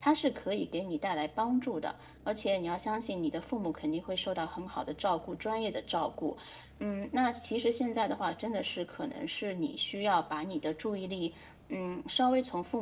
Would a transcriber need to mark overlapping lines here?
No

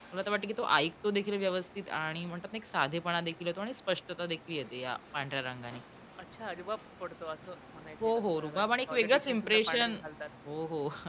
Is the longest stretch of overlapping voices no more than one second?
No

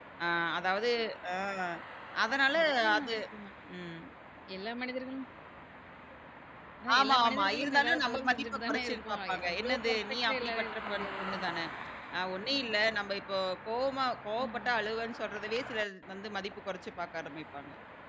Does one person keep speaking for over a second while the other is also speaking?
Yes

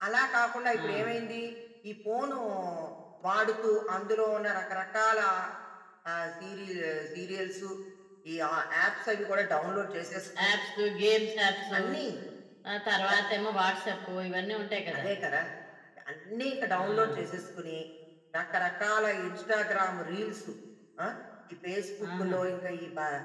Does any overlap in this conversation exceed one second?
No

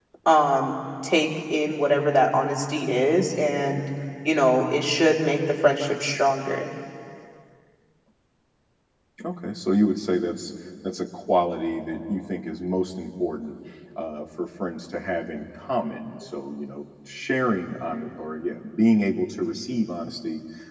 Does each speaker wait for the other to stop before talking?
Yes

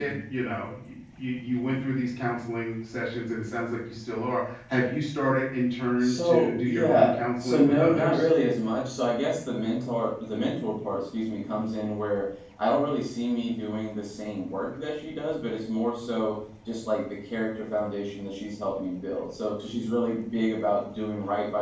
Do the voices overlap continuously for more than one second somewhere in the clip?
Yes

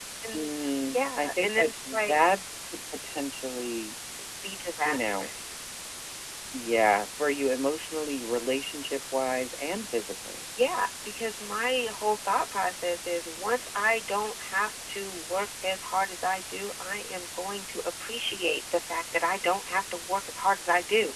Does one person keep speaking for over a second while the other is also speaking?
Yes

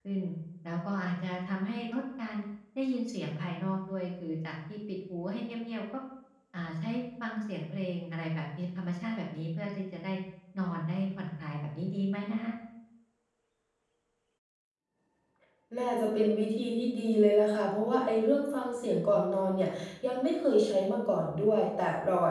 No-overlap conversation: Yes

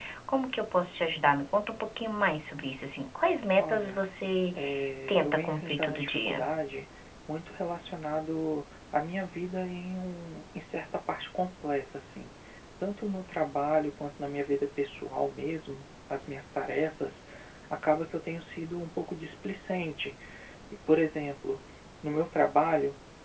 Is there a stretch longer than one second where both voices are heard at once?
Yes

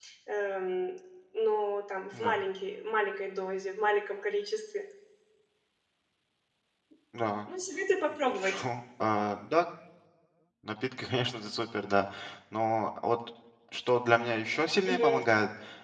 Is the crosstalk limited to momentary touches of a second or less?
Yes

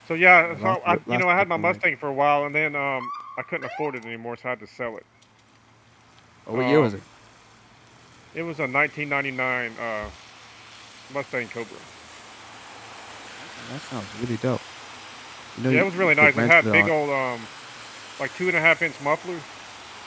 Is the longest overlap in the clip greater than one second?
Yes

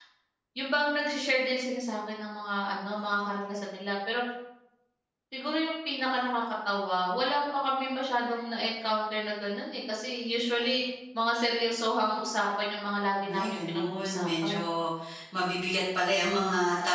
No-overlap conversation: No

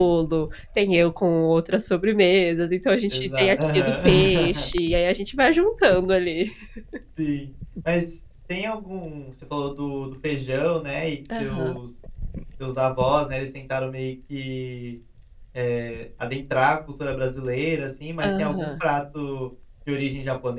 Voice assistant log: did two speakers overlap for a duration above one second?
Yes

